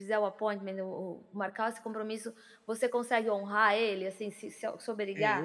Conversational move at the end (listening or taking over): taking over